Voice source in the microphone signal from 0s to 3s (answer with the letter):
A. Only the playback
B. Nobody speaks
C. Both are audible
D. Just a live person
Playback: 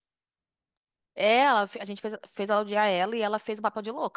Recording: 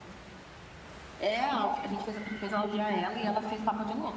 A